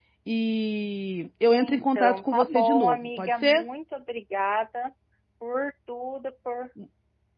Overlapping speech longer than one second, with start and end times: 1.5-3.6

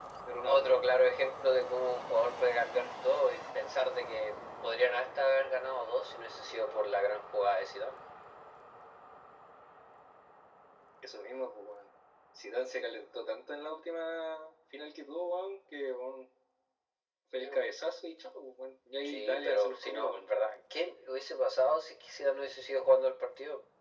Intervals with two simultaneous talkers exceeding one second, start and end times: 19.0-20.3

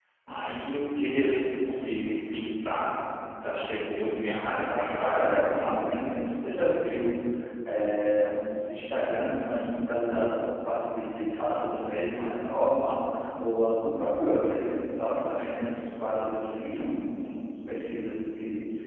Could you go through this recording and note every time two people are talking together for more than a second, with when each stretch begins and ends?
4.3-5.9

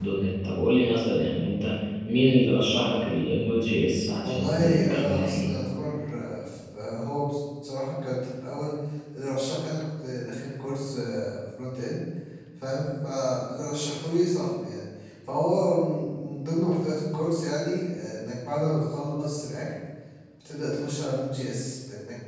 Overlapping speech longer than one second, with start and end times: 4.2-5.5

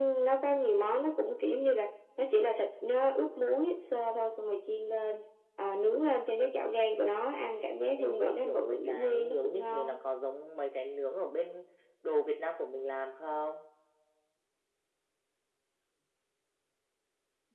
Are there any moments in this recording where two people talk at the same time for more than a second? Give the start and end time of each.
8.0-10.0

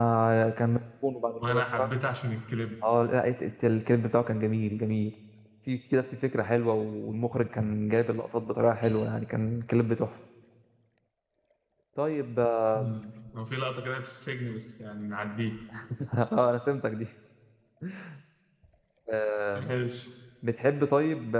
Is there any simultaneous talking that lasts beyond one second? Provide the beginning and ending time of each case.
none

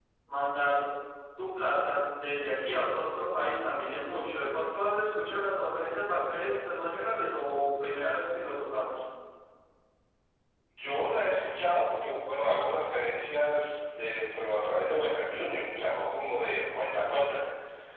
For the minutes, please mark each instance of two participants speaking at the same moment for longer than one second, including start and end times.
none

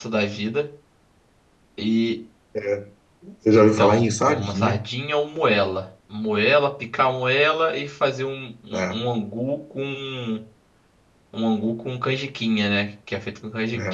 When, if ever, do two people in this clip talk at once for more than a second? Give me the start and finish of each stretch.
3.6-4.8

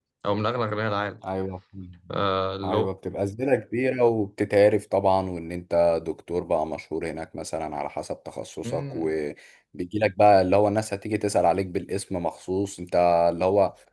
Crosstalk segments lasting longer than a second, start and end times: none

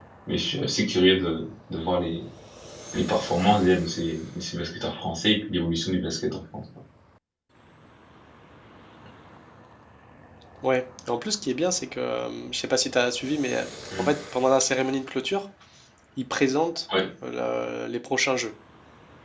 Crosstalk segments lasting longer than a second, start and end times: none

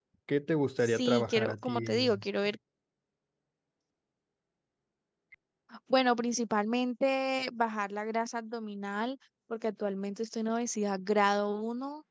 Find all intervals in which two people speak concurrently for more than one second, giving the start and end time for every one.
0.8-2.1

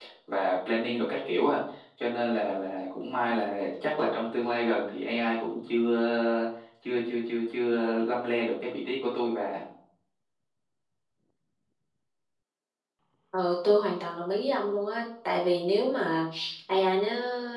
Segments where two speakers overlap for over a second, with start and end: none

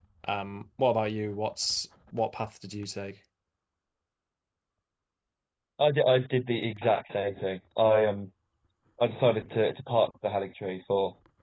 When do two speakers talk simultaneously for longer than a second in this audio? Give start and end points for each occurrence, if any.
none

